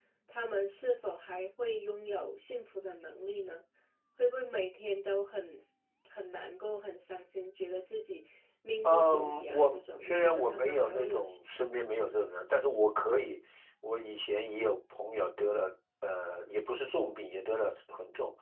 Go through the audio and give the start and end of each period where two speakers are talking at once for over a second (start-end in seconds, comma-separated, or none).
8.8-11.2